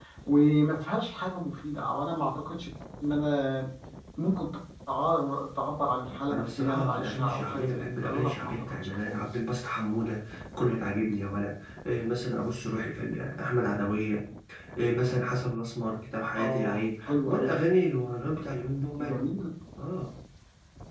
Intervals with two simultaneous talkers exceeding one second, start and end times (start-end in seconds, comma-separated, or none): 6.3-9.3, 16.2-17.6